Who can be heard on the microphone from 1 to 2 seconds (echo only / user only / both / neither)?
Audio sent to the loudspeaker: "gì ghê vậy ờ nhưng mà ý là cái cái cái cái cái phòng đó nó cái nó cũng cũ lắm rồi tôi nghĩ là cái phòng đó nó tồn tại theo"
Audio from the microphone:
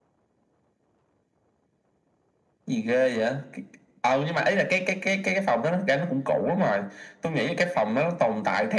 neither